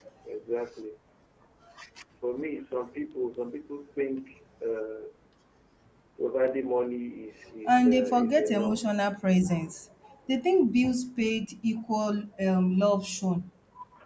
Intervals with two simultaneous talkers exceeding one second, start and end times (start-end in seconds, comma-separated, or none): 7.7-8.8